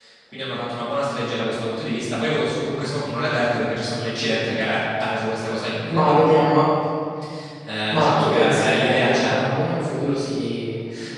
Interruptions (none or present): present